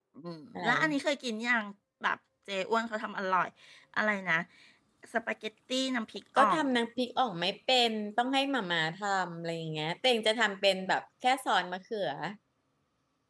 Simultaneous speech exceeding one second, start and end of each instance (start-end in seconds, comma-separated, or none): none